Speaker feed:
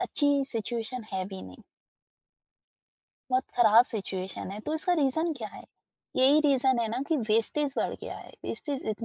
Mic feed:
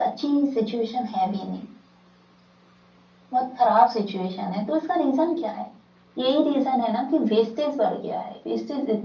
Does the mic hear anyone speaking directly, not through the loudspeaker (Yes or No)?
No